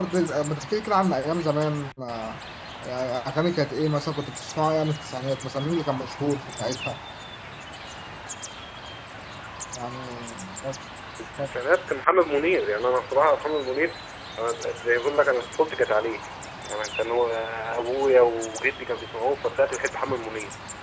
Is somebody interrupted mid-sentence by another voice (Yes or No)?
No